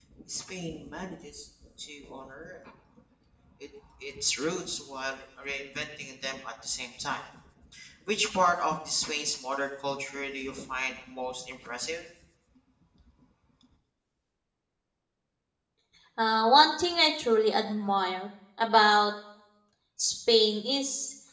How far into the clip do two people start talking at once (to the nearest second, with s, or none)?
none